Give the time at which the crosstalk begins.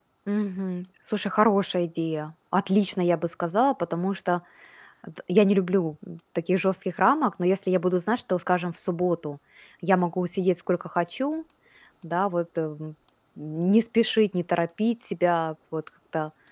none

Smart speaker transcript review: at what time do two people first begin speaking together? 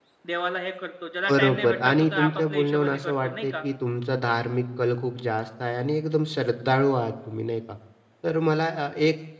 1.3 s

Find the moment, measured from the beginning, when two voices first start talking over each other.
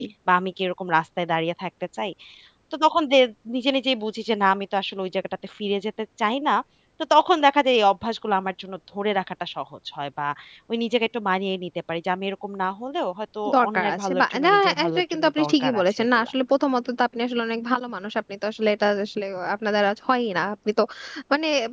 13.4 s

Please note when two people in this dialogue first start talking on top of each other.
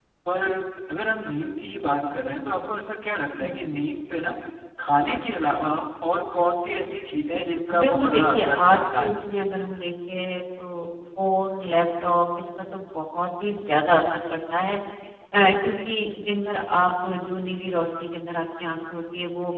7.7 s

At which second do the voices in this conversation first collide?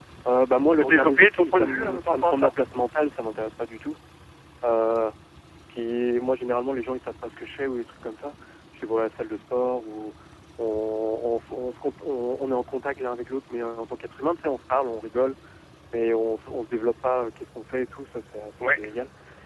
0.7 s

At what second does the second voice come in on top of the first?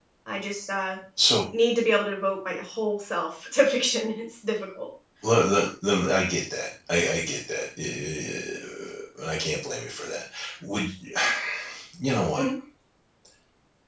none

